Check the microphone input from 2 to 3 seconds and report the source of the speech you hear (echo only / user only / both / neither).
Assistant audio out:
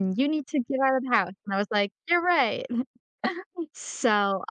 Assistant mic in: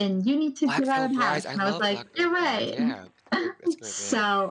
both